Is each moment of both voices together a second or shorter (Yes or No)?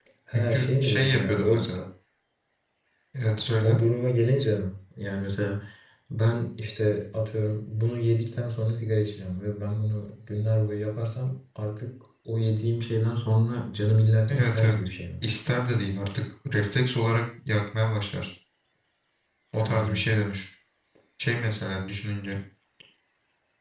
No